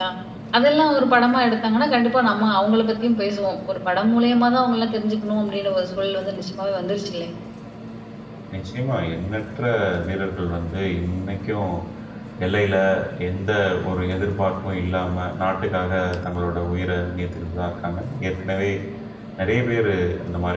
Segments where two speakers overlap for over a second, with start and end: none

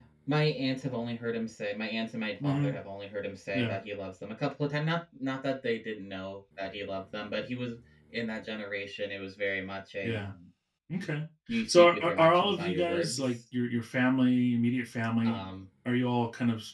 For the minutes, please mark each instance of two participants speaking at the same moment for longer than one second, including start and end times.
11.7-13.4

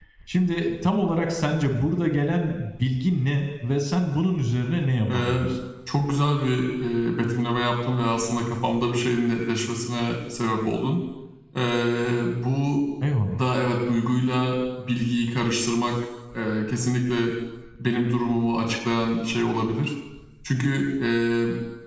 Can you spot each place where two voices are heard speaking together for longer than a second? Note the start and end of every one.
none

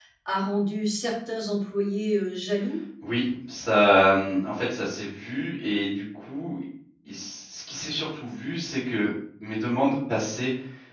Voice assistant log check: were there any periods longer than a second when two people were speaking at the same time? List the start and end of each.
none

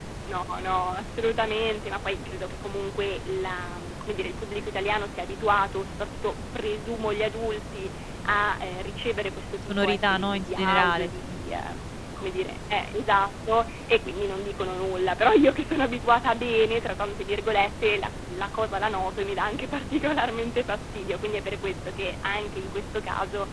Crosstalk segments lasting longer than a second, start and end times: 9.7-11.3

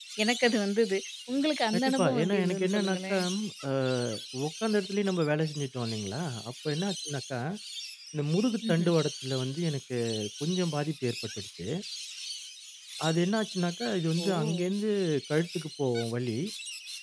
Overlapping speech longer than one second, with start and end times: 1.9-3.2

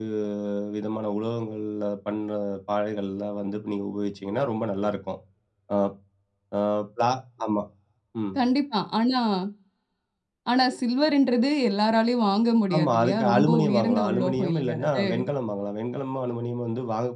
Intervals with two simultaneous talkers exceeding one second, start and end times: 12.8-15.0

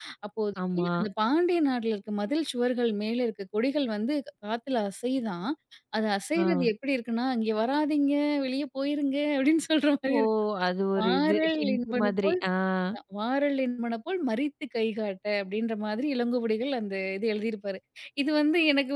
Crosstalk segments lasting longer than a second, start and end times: 11.0-12.4

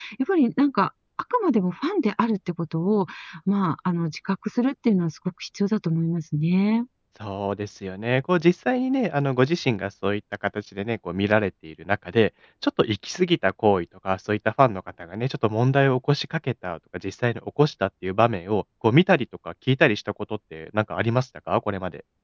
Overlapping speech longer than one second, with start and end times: none

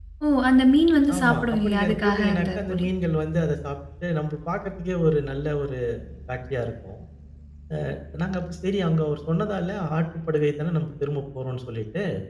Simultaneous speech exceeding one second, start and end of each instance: 1.2-2.8

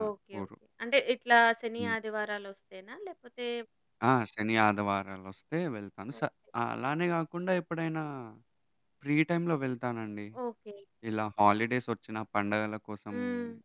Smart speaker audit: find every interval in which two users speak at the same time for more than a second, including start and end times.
none

